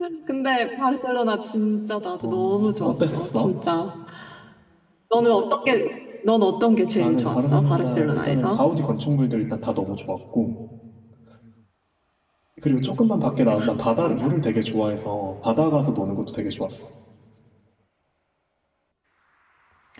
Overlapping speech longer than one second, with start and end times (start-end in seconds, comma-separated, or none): 2.2-3.5, 7.0-8.6